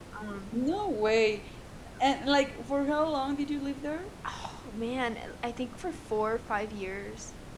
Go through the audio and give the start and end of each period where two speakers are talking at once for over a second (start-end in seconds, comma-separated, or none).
none